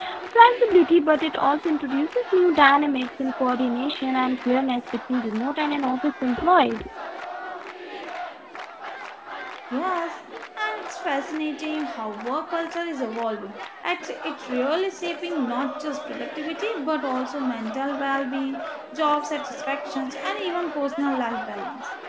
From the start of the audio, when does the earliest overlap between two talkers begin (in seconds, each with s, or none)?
none